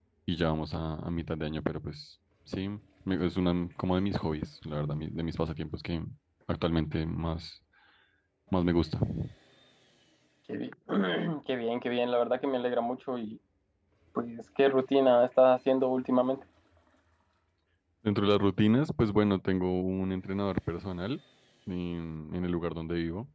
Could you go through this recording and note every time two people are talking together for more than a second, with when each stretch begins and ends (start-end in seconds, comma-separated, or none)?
none